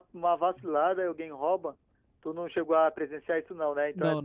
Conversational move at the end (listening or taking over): taking over